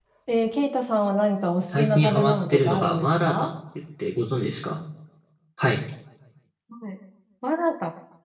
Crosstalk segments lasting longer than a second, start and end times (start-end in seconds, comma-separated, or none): 1.6-3.5